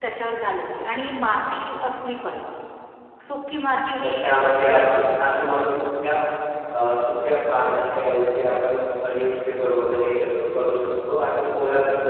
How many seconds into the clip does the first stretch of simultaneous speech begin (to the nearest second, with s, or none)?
4 s